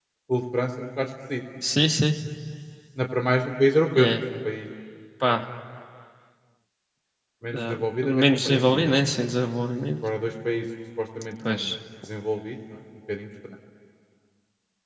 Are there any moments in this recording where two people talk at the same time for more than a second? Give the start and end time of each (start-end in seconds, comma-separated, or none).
7.5-8.9